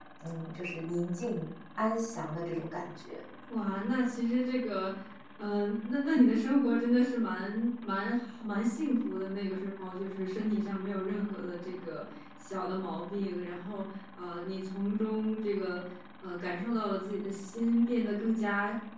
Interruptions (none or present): none